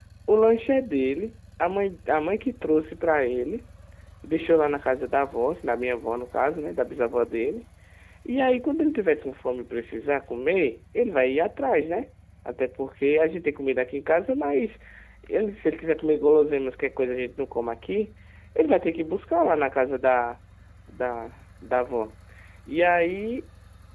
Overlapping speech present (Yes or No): No